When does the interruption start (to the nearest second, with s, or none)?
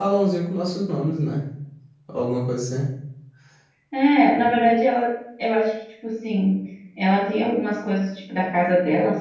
none